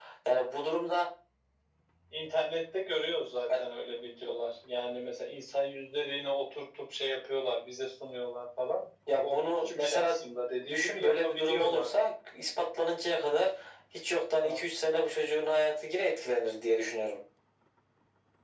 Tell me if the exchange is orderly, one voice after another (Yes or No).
No